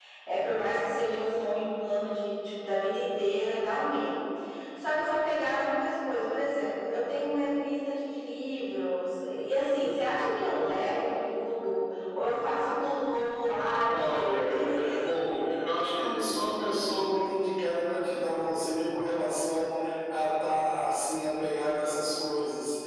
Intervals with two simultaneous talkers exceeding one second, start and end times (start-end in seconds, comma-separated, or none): 13.9-15.2